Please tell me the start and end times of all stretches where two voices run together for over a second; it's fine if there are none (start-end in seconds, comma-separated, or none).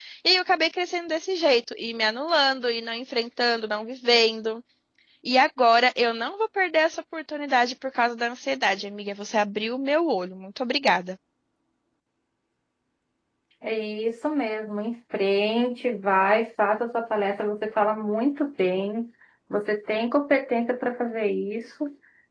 none